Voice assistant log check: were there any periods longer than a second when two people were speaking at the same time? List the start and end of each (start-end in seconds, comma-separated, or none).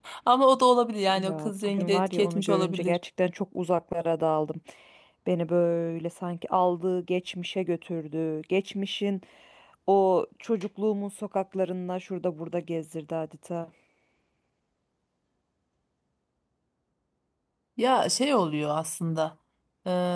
1.2-3.0